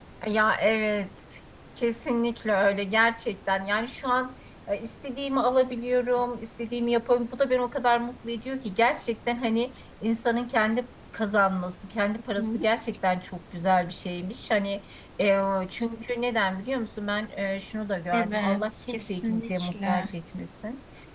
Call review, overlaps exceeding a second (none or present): present